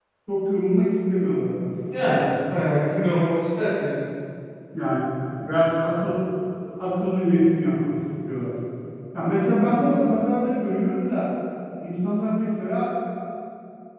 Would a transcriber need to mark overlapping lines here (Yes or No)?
No